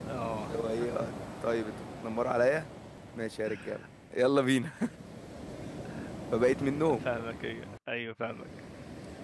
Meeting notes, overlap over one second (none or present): none